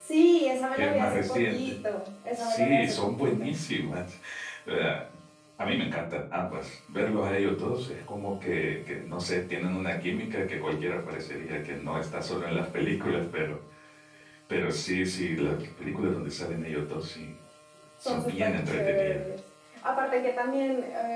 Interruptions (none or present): present